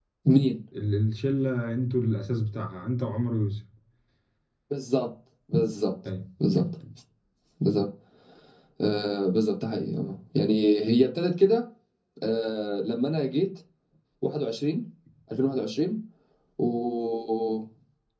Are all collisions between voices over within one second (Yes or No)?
Yes